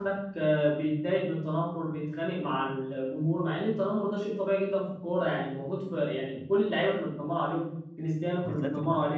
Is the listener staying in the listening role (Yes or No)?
Yes